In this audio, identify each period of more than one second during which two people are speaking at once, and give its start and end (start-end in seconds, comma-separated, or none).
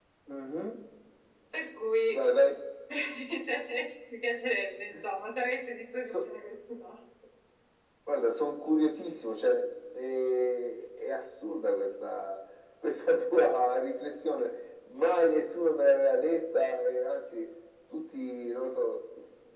none